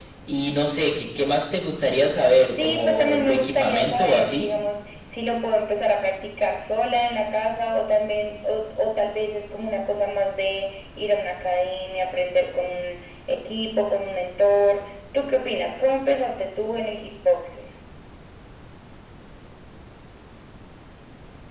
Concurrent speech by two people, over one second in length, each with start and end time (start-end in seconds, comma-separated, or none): 2.6-4.5